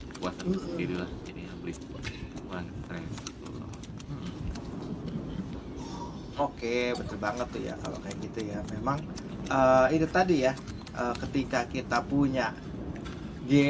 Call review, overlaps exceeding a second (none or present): none